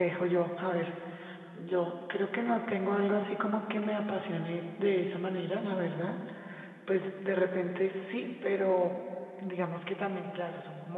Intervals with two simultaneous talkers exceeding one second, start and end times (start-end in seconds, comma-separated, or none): none